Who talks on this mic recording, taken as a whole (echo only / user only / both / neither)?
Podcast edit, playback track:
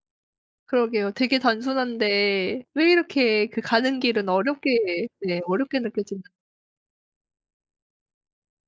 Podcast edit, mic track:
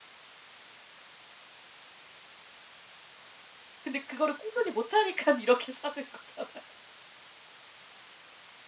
user only